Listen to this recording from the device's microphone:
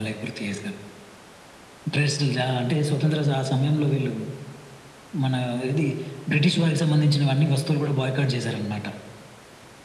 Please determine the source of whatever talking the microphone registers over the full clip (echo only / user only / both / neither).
echo only